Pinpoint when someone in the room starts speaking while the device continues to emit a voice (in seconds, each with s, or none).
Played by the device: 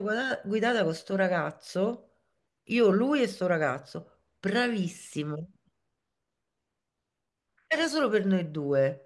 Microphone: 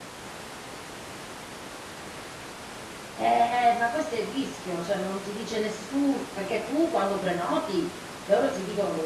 3.1 s